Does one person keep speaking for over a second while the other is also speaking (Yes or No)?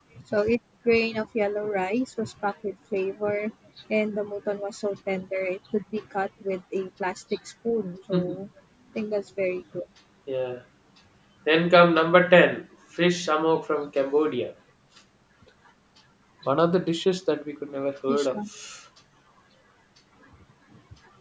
No